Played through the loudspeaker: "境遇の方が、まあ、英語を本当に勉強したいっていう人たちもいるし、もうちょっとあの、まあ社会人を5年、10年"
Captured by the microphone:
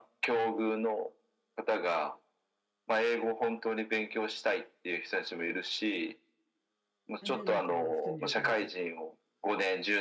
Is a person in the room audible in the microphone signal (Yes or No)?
Yes